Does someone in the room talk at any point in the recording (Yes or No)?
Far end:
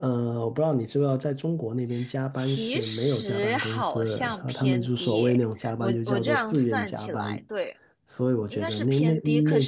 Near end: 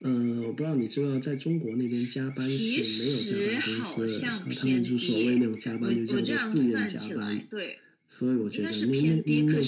No